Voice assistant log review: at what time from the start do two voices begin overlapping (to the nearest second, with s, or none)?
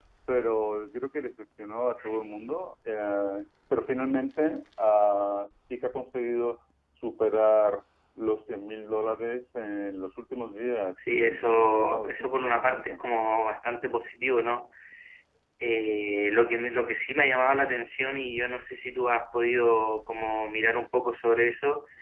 11 s